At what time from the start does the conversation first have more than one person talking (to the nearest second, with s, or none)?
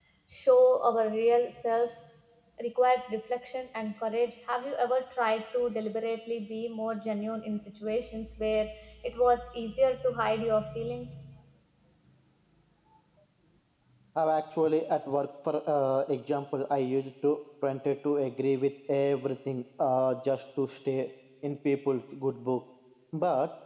none